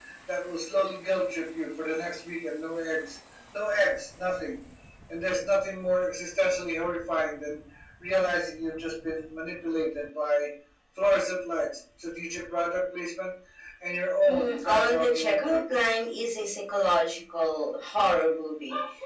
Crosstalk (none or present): present